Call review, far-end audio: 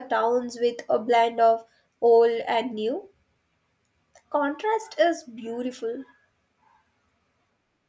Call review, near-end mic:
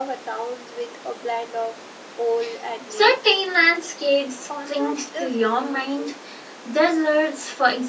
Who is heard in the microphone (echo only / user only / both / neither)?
both